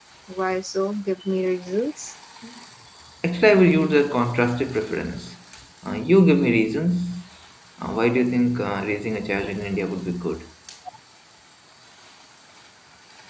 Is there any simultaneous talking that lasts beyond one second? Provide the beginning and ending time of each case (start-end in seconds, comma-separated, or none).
none